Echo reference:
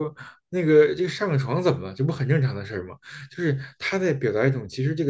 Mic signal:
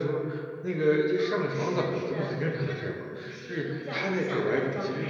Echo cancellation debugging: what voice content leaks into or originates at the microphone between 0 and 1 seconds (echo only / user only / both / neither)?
echo only